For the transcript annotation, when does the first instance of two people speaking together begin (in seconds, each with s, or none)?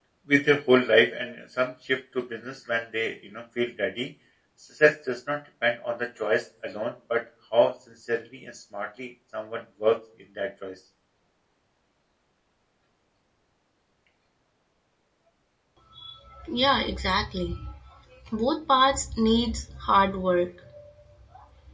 none